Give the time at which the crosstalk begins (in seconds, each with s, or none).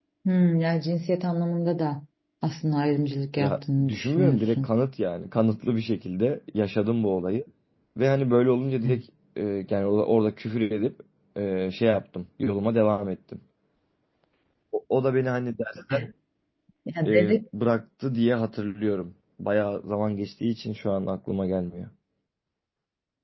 3.4 s